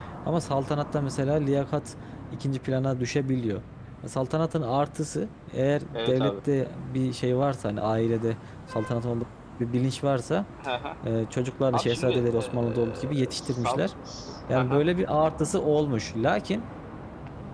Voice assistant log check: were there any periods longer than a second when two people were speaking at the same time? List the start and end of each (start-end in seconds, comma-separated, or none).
11.7-13.8